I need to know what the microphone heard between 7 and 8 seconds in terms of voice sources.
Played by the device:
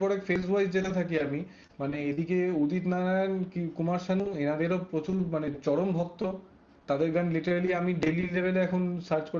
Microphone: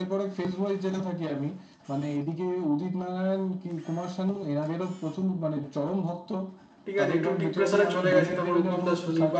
both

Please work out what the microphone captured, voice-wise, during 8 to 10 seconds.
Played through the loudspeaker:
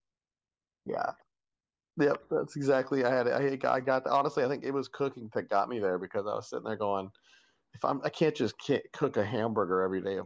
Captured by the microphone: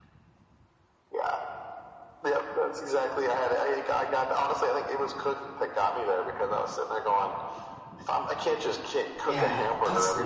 both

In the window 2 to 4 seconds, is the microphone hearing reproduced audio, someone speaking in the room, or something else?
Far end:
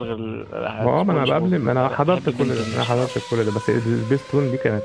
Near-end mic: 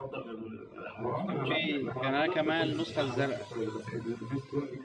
both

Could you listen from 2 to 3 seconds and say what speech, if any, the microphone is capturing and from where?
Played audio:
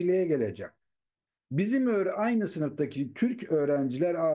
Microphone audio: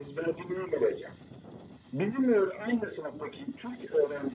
echo only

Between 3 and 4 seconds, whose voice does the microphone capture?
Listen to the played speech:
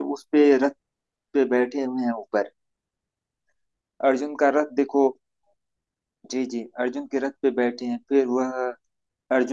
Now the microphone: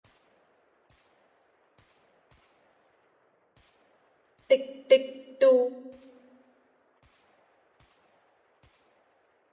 neither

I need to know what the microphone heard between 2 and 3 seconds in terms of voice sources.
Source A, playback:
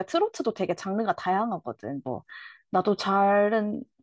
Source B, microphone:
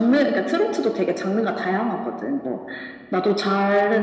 echo only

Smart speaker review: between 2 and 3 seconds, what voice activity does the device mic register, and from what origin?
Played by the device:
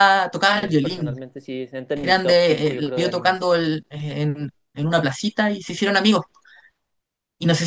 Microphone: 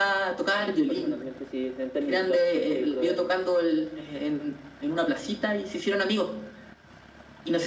echo only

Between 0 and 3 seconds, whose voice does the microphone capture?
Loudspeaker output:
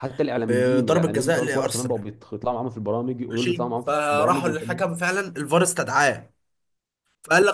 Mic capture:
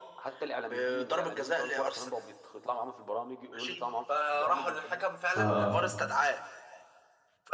echo only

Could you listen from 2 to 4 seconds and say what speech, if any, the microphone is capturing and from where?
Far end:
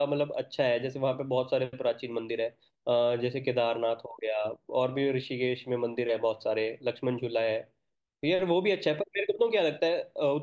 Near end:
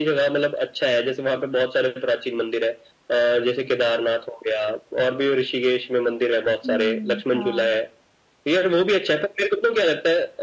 echo only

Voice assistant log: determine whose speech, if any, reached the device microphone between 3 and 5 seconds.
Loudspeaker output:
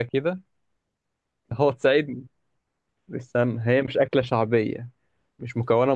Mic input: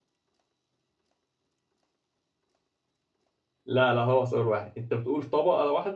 user only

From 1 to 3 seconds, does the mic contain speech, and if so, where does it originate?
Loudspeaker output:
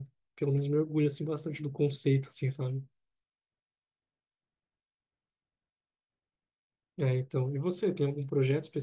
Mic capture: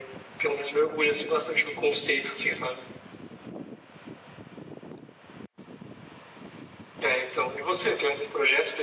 echo only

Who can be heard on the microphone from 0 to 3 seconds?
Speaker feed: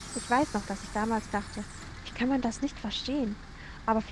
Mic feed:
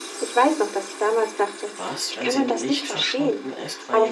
both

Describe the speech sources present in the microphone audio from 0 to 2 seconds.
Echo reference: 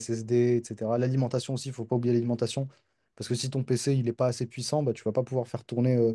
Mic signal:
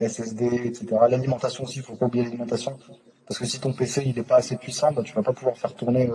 echo only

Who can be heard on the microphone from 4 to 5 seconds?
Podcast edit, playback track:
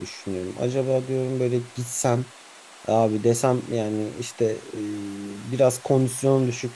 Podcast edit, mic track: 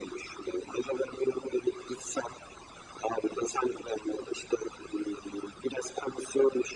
echo only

